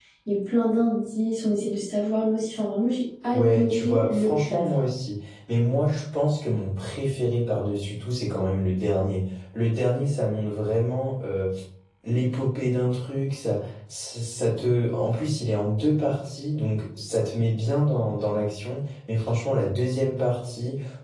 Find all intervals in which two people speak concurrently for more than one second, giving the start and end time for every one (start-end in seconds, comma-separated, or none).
3.3-4.6